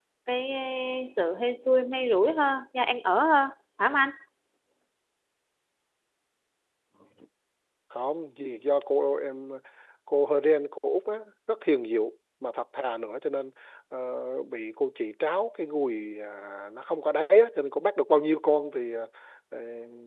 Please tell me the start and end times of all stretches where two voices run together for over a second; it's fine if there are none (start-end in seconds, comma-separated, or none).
none